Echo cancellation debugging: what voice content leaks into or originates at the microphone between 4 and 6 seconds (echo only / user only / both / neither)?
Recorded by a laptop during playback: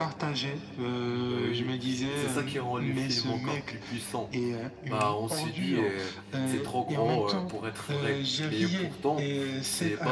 both